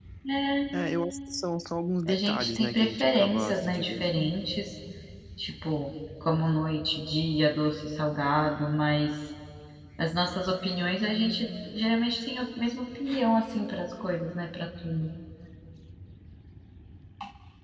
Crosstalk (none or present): present